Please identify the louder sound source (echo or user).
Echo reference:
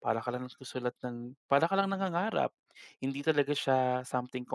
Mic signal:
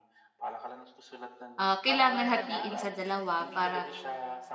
user